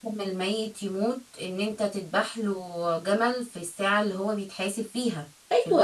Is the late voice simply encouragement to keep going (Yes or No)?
No